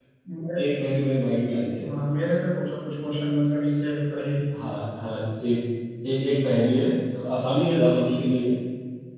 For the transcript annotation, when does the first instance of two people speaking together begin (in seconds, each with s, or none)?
none